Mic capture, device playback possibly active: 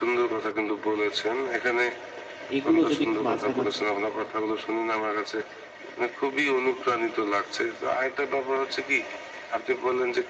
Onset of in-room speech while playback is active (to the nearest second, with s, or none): 3 s